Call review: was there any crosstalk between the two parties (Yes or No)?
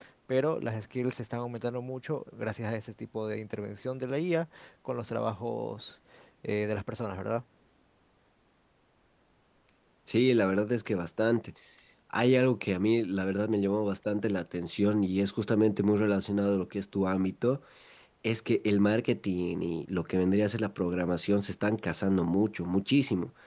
No